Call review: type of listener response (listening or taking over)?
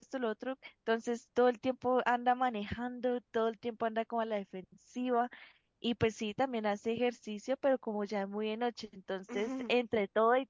listening